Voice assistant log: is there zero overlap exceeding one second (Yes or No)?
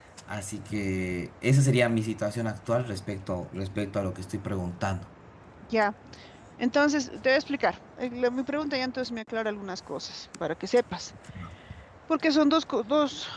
Yes